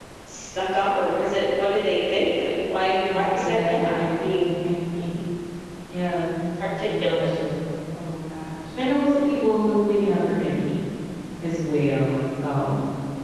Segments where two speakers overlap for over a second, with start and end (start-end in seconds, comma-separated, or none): 3.1-4.5